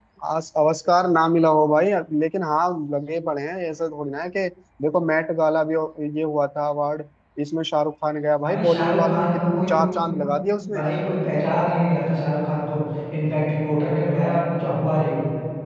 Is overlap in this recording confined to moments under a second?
No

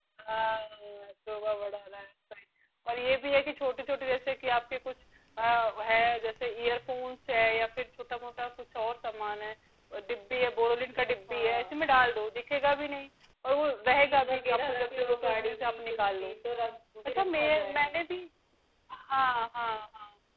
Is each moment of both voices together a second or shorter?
No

